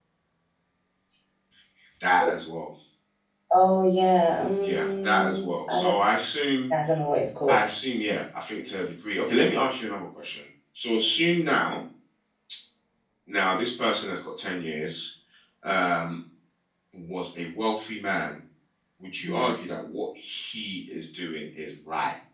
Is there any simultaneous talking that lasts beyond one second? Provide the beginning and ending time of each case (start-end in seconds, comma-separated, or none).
4.6-5.9